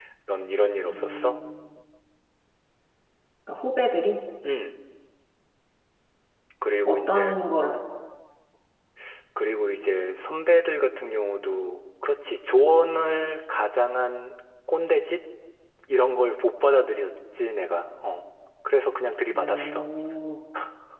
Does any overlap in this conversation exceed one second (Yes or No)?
No